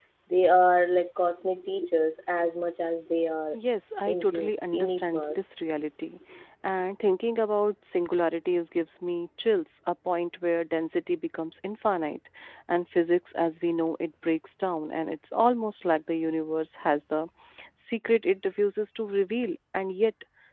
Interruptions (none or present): present